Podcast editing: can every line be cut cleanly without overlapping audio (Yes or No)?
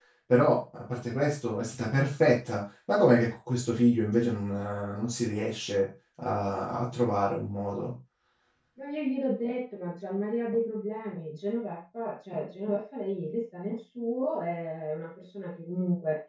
Yes